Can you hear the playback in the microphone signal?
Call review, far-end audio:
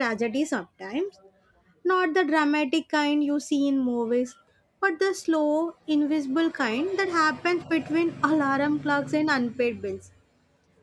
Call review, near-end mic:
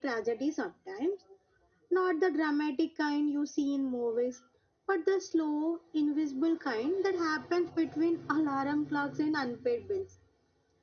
Yes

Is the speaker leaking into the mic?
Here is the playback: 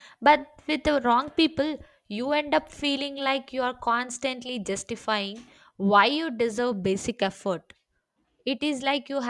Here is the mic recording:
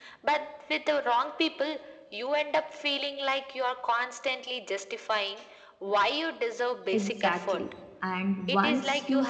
Yes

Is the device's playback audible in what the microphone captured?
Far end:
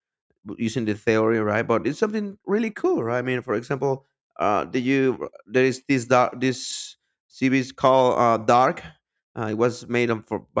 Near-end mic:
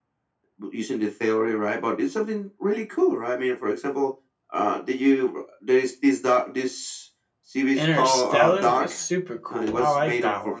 Yes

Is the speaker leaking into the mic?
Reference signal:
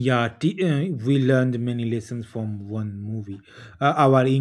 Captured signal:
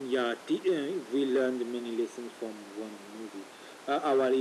Yes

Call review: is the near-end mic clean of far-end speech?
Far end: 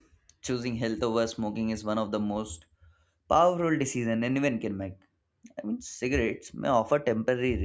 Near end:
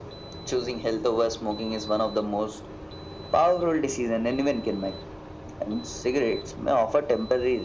No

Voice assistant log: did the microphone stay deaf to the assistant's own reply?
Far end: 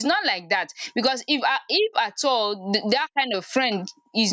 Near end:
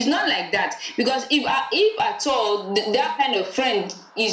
No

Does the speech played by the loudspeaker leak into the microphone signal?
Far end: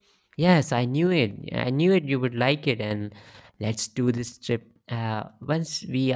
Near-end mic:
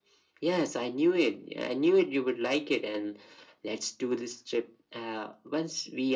Yes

